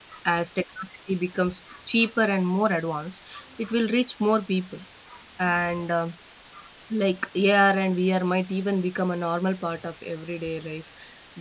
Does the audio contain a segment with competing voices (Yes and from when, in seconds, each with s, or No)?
No